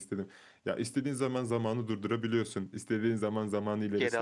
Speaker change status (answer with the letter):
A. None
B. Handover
A